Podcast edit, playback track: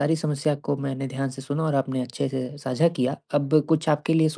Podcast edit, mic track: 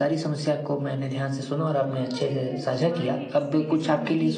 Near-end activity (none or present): present